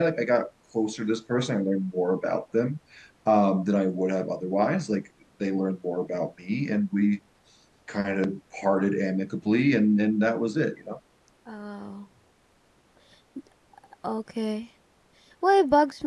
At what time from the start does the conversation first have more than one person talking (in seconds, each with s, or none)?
none